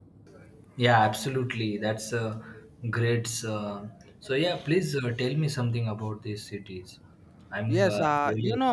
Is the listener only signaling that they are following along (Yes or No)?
No